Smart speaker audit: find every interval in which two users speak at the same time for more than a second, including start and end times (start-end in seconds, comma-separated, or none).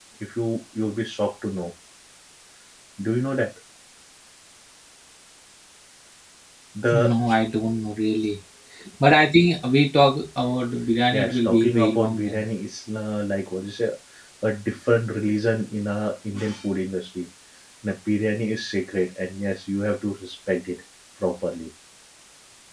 11.1-12.4